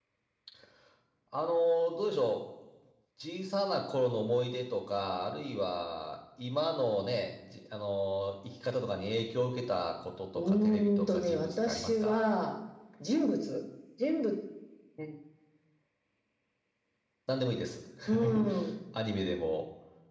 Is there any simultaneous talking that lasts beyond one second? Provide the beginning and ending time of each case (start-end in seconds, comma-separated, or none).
10.3-12.2